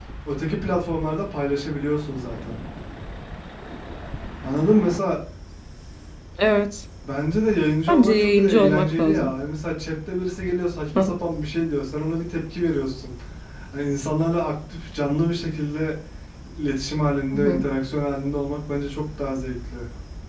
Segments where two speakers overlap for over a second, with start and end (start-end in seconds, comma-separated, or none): 7.9-9.3